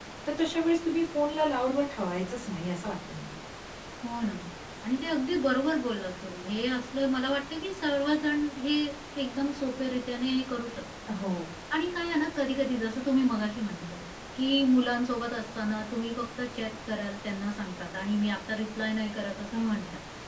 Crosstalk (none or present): none